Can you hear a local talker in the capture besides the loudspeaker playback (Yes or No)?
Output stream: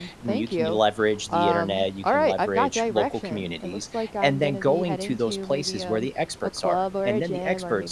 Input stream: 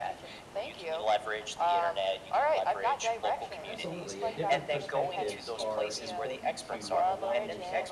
Yes